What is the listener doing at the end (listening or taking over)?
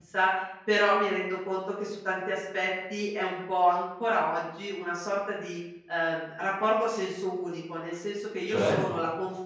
listening